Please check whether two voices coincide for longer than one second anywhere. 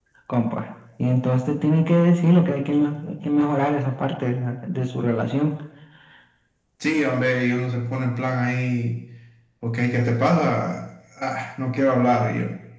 No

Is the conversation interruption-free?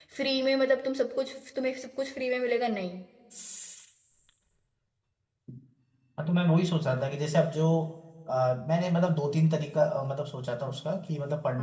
Yes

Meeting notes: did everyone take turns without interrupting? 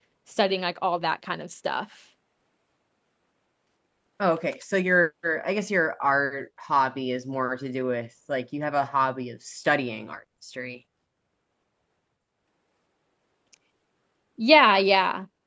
Yes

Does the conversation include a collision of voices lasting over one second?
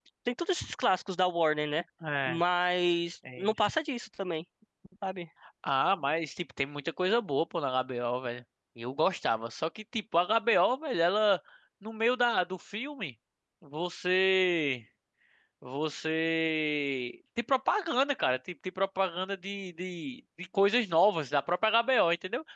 No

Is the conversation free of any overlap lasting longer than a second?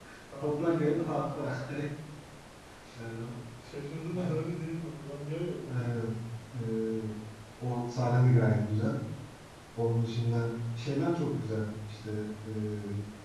Yes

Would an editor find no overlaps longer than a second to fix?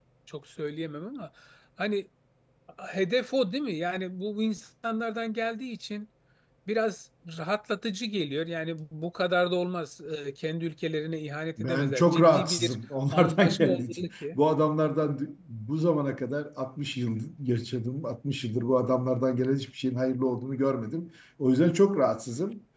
No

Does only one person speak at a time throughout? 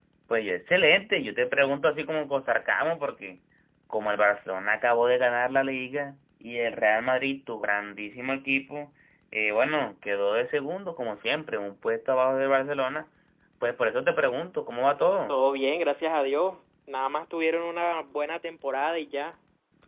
Yes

